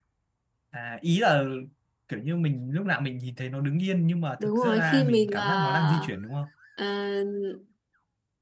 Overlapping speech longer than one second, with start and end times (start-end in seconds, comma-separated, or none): 4.4-6.1